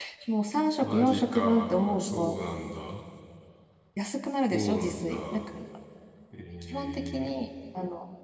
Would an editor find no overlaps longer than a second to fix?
No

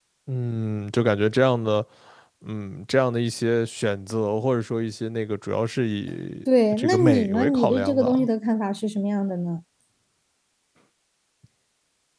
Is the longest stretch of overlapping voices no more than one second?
No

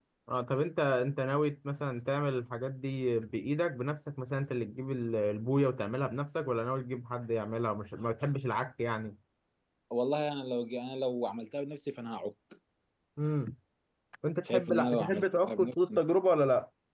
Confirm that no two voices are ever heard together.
No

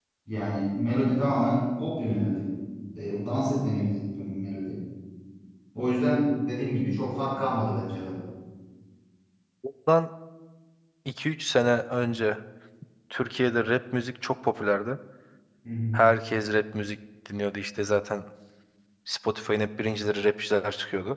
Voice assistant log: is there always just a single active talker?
Yes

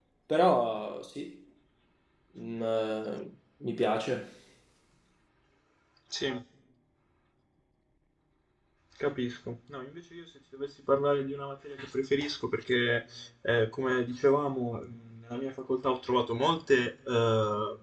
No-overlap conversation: Yes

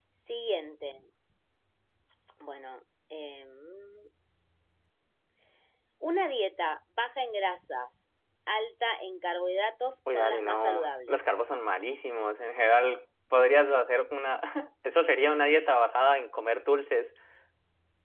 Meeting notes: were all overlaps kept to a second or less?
No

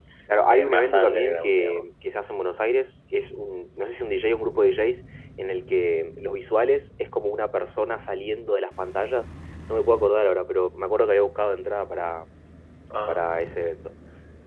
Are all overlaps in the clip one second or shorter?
No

